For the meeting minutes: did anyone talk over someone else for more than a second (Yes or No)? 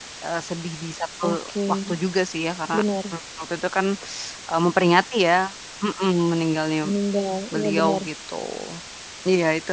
No